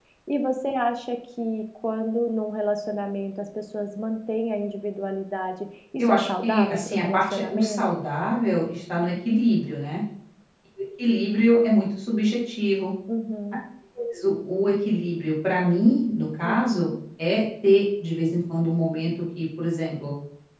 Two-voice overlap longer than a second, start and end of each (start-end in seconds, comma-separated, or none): 6.0-7.8